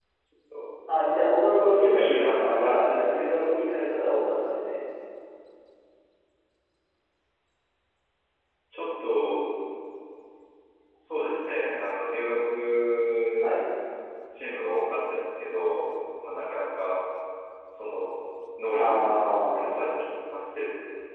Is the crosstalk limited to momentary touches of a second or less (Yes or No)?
No